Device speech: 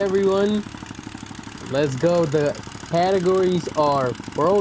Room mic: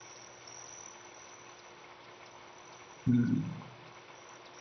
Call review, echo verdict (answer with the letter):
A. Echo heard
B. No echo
B